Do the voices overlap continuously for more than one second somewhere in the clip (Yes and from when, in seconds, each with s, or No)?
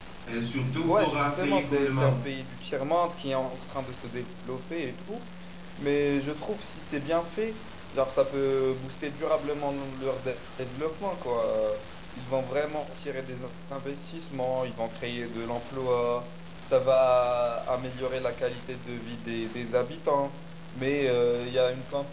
Yes, from 0.9 s